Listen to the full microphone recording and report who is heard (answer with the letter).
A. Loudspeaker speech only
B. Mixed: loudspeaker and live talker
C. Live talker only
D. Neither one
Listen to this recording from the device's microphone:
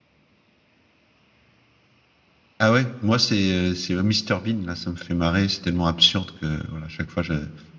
C